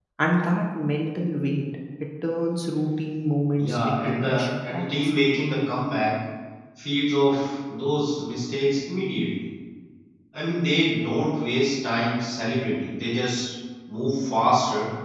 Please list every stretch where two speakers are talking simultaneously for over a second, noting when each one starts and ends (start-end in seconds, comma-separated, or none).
3.6-4.9